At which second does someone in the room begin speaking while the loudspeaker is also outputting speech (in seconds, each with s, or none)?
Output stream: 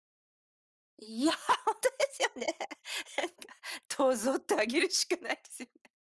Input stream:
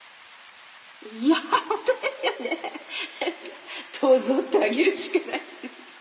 none